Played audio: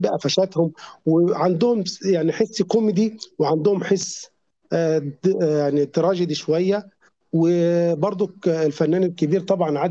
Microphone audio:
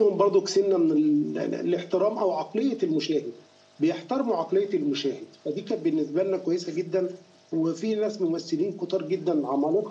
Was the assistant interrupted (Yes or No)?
Yes